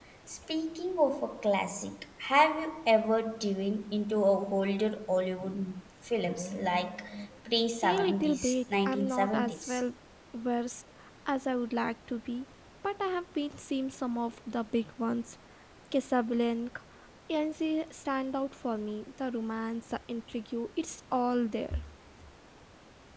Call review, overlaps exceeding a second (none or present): present